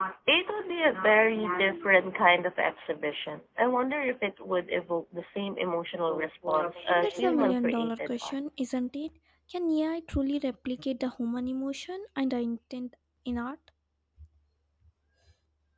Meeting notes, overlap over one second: present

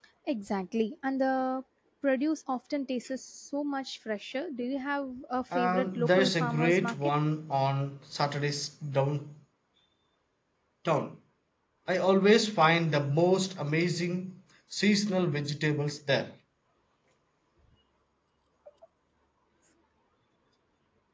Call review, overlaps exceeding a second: present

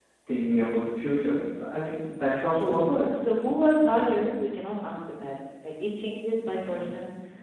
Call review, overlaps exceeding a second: none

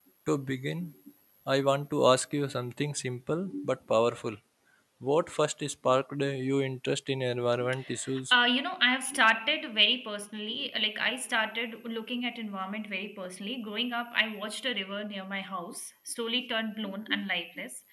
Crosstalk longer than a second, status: none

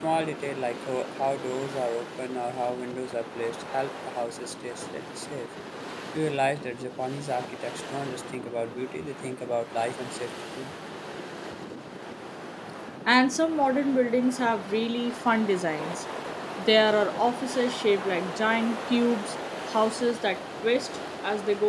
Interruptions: none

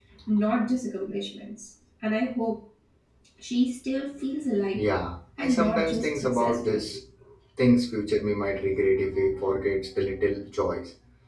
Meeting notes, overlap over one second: present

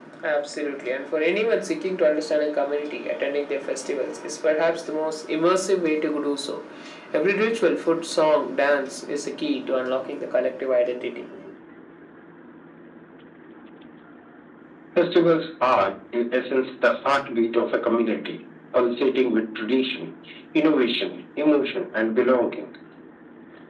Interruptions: none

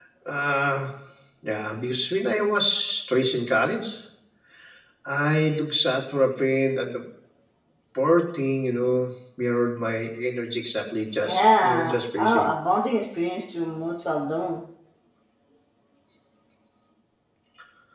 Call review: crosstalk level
present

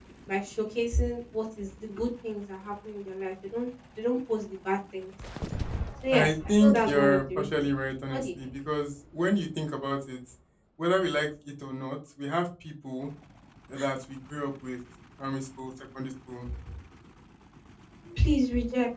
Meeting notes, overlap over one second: present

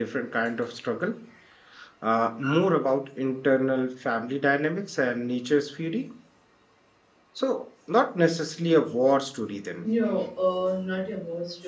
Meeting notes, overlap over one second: none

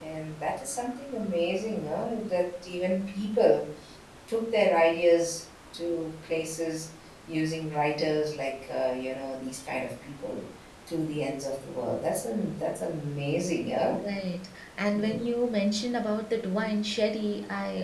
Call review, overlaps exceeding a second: none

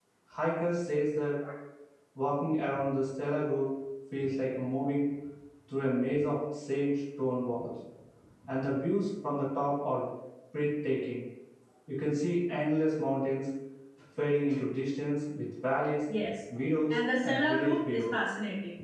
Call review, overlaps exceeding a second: present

